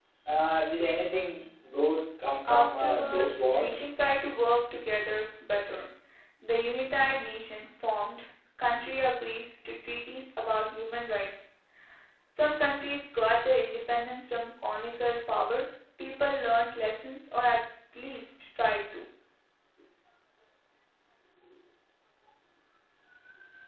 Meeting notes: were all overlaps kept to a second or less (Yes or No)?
No